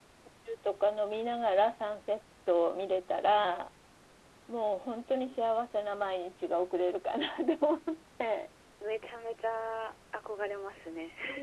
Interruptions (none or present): none